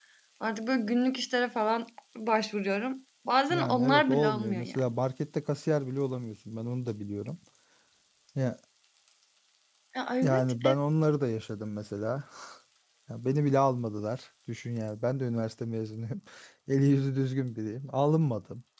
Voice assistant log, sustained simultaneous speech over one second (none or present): present